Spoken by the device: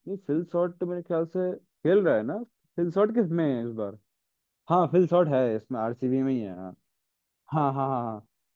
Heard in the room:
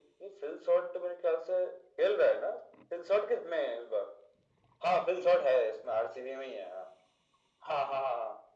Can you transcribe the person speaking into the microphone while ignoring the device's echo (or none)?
none